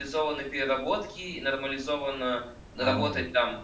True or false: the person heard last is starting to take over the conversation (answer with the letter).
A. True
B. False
B